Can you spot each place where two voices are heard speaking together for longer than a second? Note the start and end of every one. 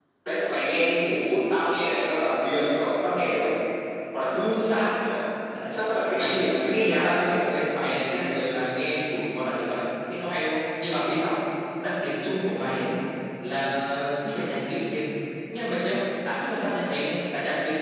6.1-7.4

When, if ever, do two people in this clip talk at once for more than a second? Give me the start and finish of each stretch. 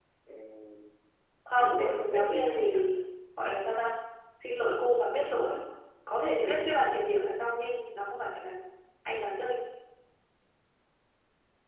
1.6-2.8

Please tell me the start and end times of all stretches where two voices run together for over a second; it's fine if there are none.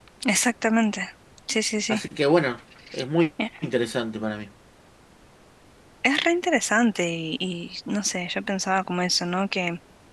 none

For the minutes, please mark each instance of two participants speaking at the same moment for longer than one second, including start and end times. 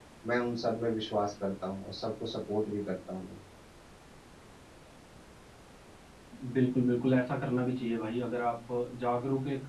none

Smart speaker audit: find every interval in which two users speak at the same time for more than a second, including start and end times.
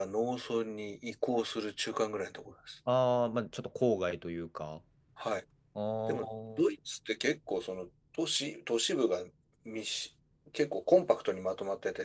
none

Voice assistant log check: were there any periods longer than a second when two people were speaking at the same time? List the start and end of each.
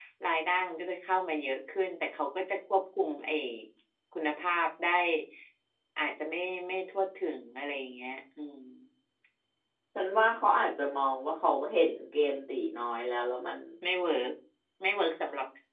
none

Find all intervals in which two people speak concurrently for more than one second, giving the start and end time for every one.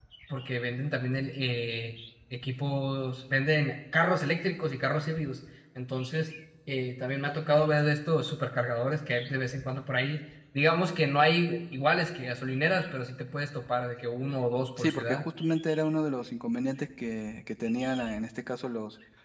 none

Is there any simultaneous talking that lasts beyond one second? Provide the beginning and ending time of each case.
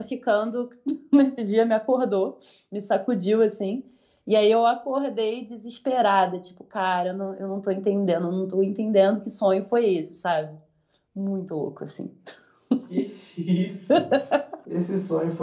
none

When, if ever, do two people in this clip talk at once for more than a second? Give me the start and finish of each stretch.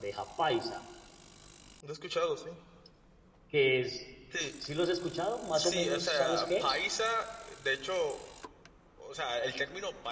5.5-6.8

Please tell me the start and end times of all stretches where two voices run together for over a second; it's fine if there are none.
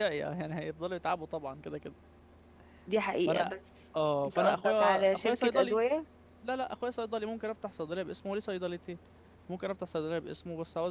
4.2-5.8

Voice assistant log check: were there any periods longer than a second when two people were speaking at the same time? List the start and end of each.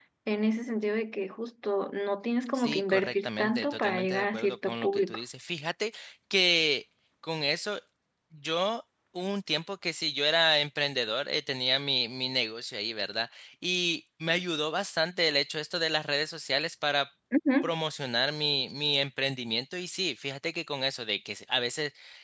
2.5-5.2

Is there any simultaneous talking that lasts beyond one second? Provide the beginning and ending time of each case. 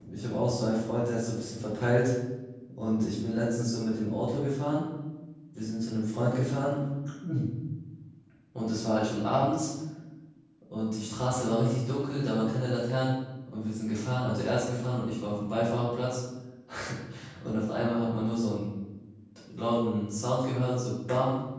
none

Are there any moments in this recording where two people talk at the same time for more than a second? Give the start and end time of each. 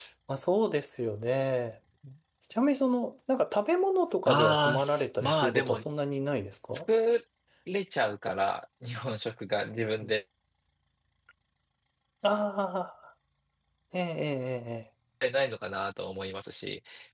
4.2-5.8

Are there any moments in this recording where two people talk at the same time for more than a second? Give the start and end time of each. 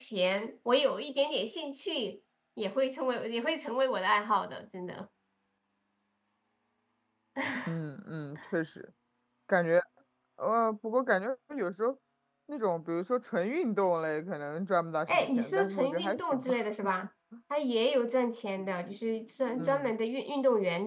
15.1-16.5

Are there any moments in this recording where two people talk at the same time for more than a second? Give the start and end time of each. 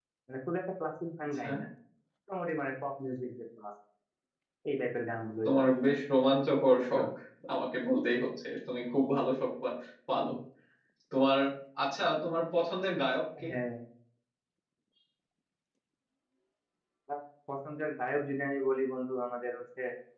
none

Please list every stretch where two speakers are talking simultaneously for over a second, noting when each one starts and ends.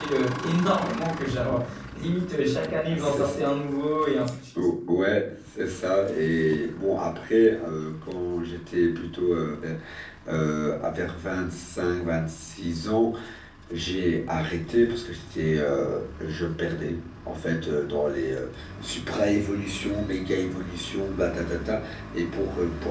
none

